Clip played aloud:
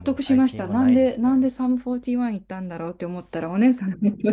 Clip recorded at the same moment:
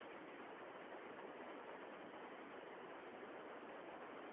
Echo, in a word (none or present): none